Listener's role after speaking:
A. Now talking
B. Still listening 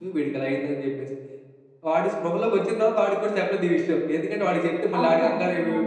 B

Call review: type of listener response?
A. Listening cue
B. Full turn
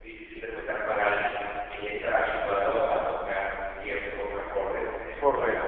B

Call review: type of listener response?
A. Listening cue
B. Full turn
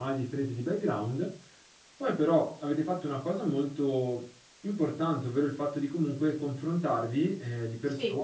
A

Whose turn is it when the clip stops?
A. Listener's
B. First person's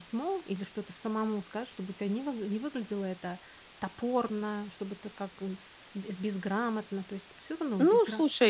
A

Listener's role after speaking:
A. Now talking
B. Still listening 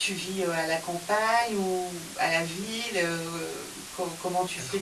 B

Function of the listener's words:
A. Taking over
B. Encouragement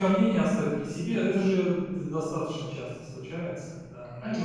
B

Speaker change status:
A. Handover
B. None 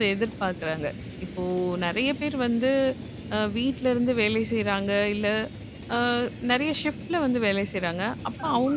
B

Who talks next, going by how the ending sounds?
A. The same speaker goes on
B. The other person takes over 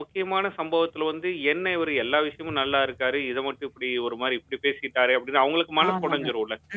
B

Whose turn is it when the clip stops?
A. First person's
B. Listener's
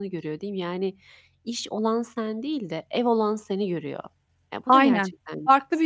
B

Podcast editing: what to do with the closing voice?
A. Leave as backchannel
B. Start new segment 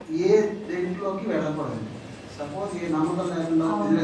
A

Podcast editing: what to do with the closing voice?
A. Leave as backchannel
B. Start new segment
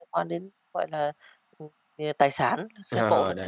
B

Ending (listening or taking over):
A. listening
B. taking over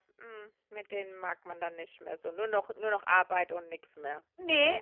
B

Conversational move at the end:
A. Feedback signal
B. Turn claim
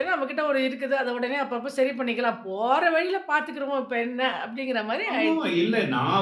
B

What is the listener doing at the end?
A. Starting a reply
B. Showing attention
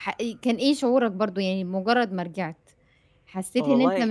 B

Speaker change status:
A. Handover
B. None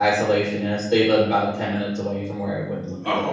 A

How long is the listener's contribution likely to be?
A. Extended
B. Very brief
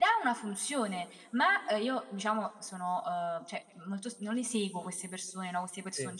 B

